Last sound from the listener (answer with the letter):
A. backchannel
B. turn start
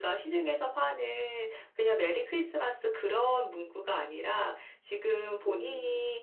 A